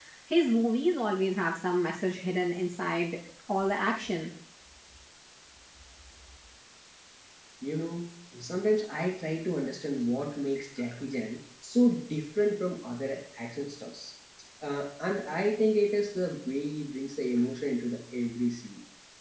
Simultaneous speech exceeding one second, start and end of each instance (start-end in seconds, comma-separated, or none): none